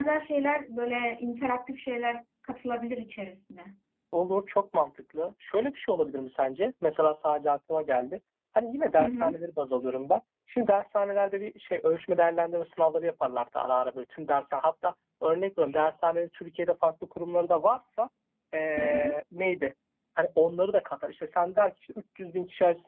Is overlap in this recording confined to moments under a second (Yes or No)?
Yes